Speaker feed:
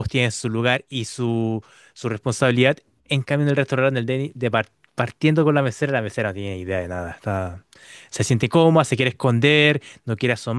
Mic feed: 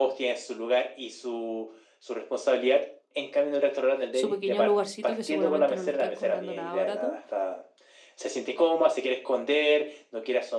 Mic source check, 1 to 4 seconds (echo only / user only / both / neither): echo only